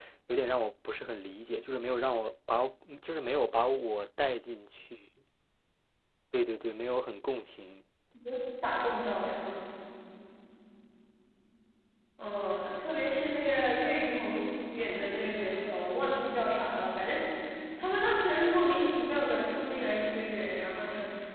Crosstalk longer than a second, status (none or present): none